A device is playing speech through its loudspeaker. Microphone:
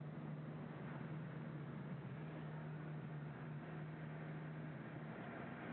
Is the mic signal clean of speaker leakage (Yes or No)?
Yes